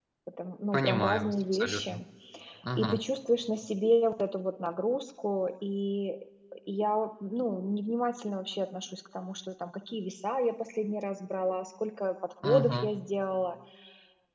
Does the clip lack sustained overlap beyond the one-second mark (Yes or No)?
No